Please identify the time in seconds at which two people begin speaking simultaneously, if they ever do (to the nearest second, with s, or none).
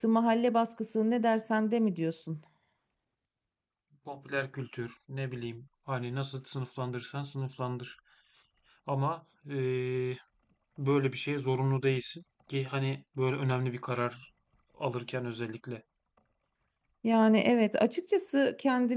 none